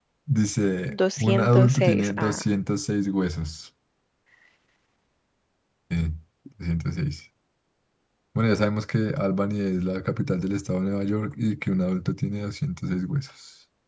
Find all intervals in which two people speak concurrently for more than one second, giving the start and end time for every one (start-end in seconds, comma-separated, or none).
0.9-2.5